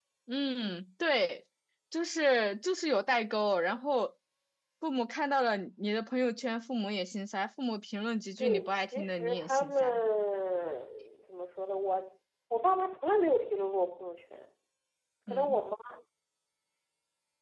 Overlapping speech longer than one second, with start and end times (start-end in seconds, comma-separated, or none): 8.4-10.0